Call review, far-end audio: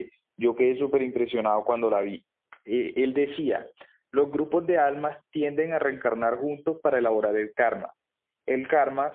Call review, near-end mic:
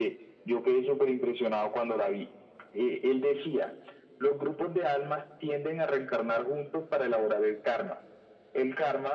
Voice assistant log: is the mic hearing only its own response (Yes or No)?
Yes